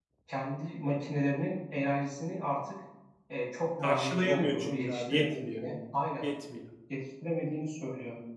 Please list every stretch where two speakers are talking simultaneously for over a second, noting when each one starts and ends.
3.8-5.6

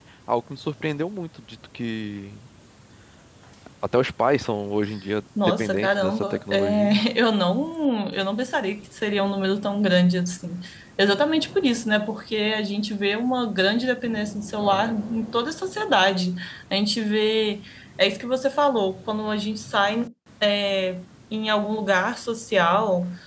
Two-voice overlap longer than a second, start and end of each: 5.4-7.0

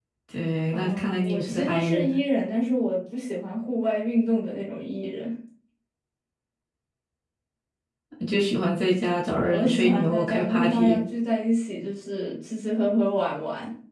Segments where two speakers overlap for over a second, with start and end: 0.7-2.1, 9.3-11.0

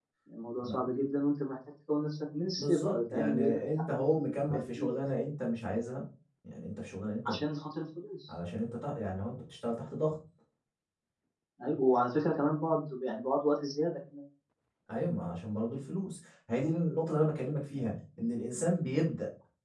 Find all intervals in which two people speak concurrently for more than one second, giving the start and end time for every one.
2.6-4.9

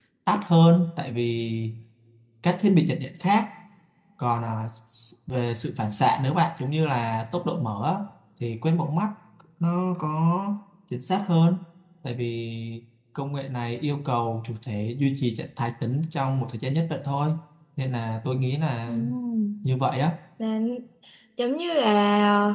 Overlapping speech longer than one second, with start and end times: none

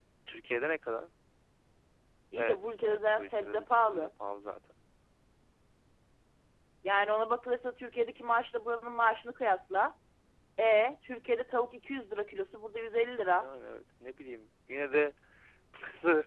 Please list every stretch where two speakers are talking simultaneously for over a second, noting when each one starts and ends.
2.4-4.1

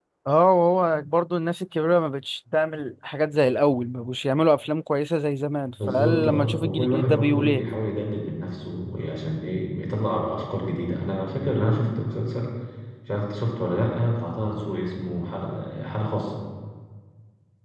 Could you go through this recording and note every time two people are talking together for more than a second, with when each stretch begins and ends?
5.9-7.7

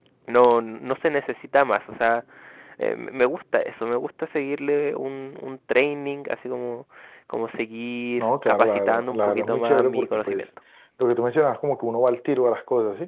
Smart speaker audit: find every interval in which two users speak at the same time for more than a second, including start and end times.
8.2-10.4

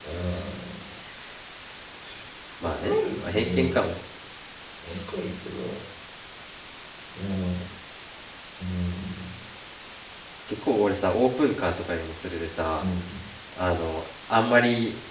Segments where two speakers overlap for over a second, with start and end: 2.6-3.9

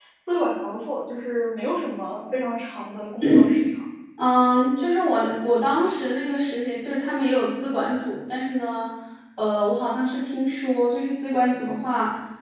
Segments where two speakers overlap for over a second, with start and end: none

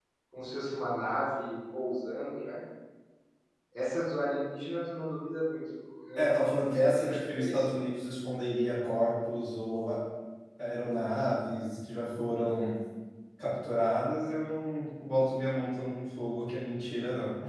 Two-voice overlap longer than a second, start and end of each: 6.2-7.8

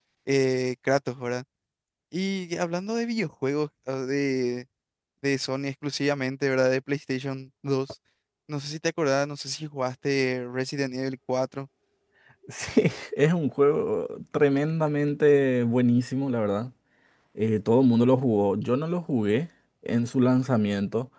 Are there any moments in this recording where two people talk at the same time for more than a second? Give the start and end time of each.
none

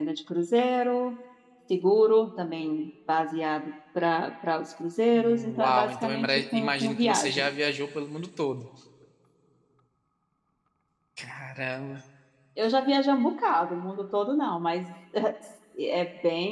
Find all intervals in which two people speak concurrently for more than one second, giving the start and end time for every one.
5.1-7.6

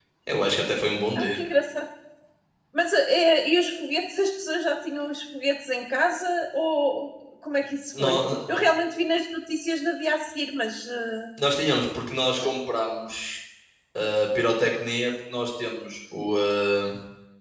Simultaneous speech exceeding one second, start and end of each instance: none

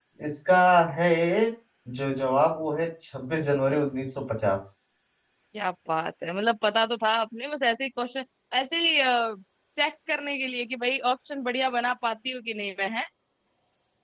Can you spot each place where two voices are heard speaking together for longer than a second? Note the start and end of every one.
none

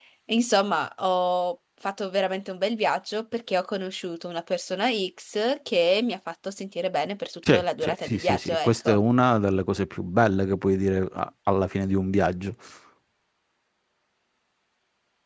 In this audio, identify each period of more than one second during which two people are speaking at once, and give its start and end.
7.5-9.0

